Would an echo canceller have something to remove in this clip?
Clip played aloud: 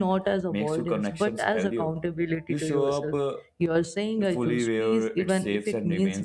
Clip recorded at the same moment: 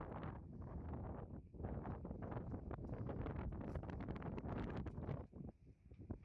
No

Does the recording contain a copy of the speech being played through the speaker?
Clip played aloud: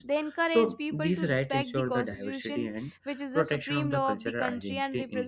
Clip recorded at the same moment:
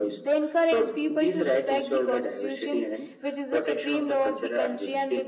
Yes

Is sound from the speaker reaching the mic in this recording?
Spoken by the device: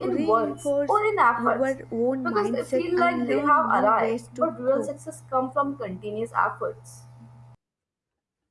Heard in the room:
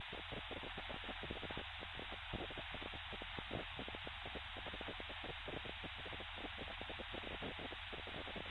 No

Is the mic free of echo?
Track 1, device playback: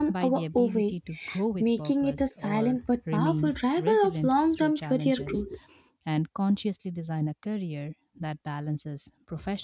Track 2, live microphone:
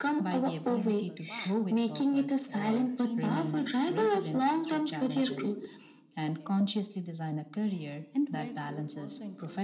No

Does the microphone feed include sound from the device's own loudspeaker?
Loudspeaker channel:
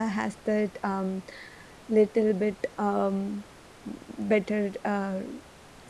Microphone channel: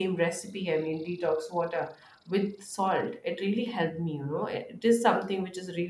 No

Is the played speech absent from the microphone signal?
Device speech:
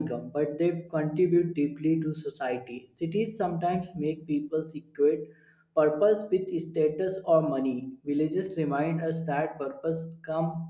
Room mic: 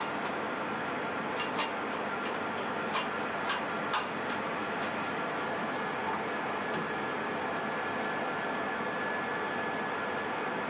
Yes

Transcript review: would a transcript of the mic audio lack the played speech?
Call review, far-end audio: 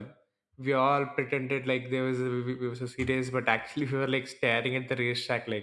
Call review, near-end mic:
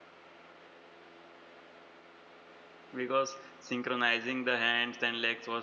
Yes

